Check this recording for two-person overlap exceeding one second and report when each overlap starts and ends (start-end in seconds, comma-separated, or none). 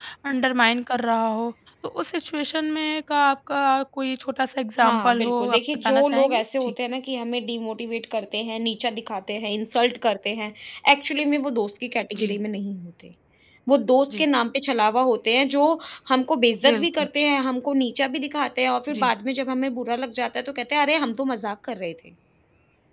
4.8-6.7